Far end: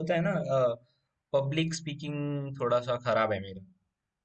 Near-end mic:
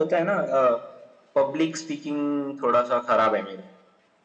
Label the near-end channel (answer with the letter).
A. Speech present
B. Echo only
B